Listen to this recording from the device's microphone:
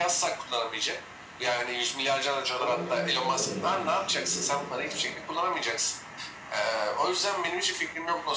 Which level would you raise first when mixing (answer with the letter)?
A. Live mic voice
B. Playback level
A